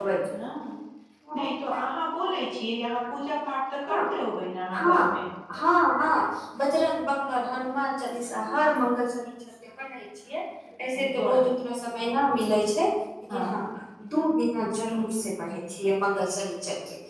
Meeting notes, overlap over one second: none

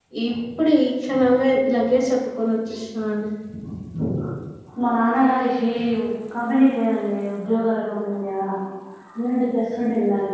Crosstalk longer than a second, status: none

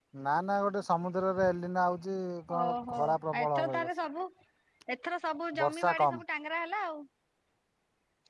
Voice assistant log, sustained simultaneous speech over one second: present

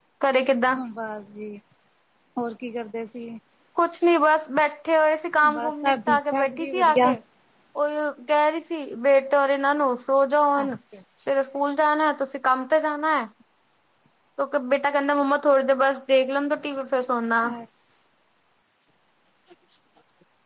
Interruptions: present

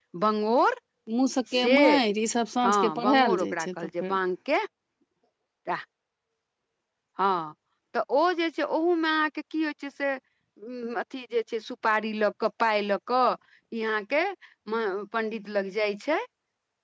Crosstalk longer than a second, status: present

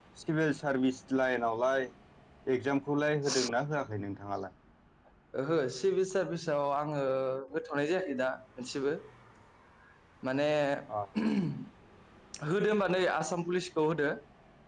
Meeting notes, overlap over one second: none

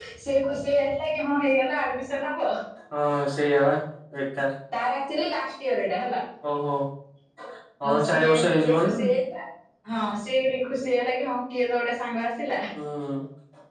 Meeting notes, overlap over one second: present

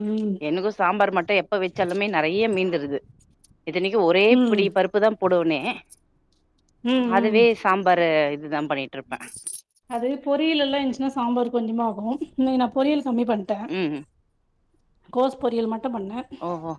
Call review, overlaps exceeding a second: none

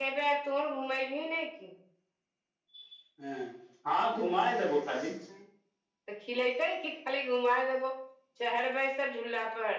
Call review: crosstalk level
none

